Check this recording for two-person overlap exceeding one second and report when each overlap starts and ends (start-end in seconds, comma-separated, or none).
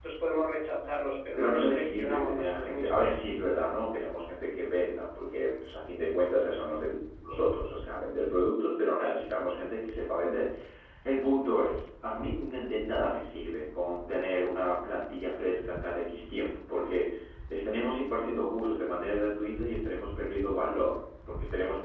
1.4-3.1